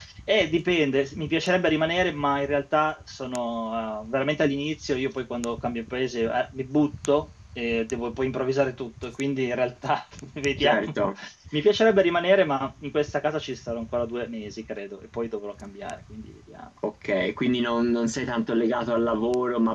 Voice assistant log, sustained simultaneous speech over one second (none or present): none